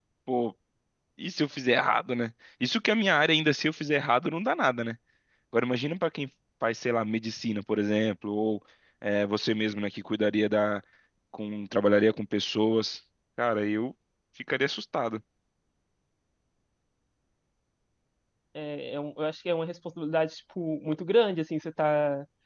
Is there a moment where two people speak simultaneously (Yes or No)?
No